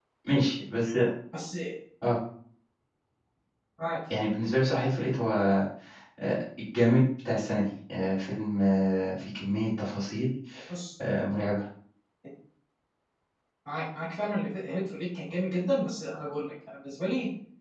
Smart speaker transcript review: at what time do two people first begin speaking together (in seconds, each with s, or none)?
none